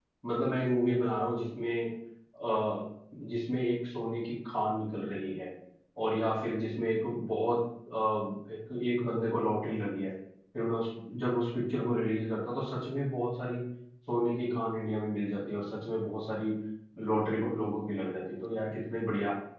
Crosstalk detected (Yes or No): No